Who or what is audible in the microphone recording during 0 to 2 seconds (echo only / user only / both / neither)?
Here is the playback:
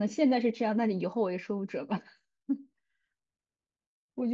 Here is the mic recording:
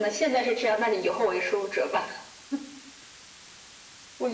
echo only